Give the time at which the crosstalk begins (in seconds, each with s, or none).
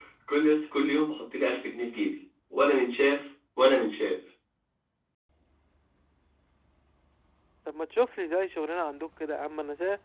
none